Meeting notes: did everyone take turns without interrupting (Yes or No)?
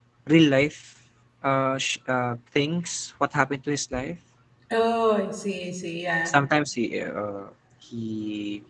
Yes